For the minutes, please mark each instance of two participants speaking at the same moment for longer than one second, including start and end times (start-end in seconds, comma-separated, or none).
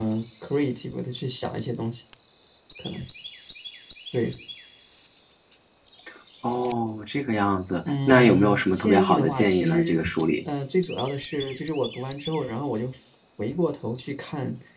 8.1-10.0